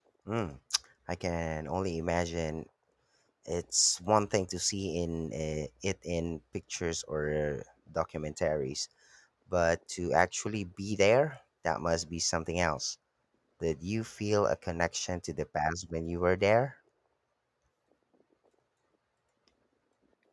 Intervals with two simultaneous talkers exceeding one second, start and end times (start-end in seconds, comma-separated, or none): none